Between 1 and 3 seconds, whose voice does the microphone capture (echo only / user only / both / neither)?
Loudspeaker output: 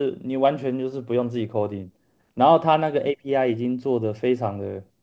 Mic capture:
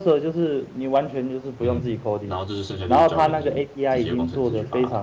both